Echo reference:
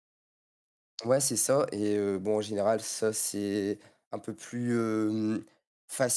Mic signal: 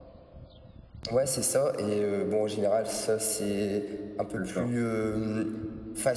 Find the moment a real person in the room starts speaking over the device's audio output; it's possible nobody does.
4.4 s

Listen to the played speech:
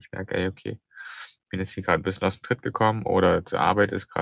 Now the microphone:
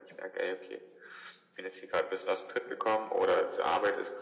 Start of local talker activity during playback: none

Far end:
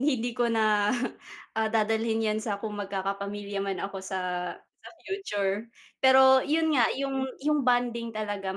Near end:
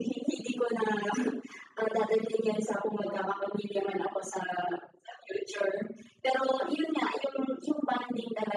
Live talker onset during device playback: none

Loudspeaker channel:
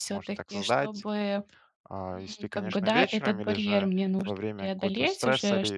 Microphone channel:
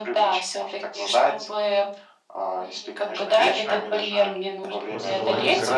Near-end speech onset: 4.9 s

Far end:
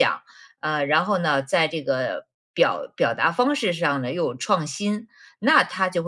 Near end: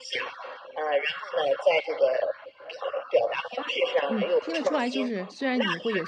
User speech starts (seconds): 4.1 s

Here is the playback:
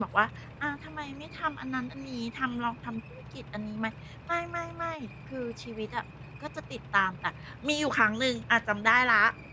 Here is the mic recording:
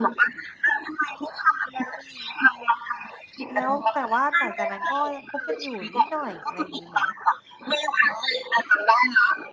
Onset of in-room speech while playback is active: 3.5 s

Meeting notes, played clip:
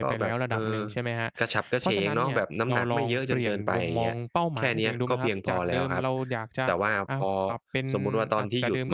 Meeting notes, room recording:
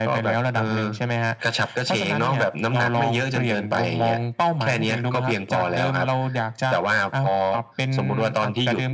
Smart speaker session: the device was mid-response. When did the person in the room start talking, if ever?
none

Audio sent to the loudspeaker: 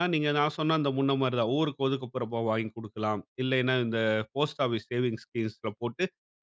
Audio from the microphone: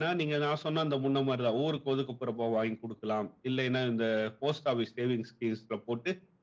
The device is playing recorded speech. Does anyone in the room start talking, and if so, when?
none

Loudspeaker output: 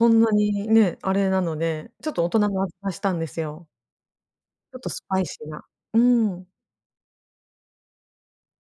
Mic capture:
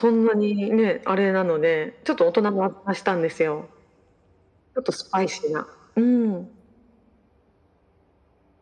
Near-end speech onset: none

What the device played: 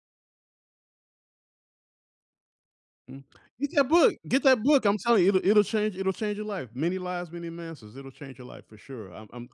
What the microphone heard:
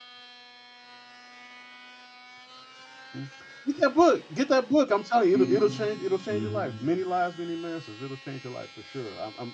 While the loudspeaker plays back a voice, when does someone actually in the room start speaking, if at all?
5.3 s

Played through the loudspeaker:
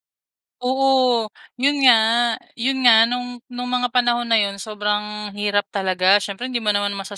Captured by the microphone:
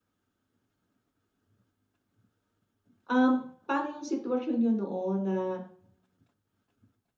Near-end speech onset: 3.0 s

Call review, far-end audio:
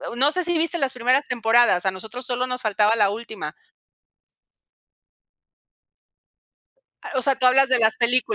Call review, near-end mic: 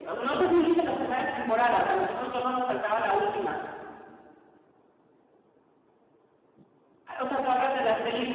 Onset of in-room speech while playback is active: none

